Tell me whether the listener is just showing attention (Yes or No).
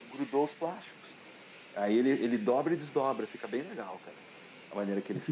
No